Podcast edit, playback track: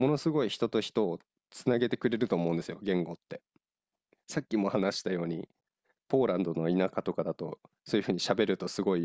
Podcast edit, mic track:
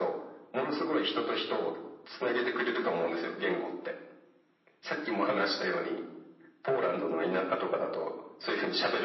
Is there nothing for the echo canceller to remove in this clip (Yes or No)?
No